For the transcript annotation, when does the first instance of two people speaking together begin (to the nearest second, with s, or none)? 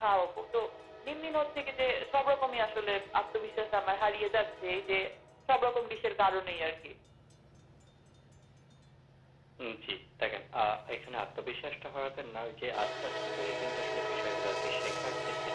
none